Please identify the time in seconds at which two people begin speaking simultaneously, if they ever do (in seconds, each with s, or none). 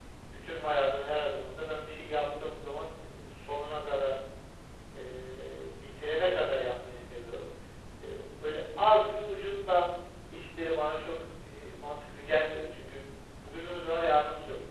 none